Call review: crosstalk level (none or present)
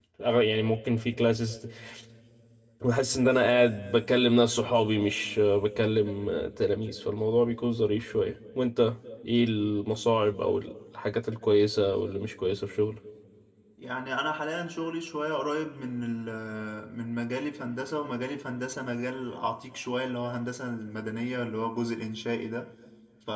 none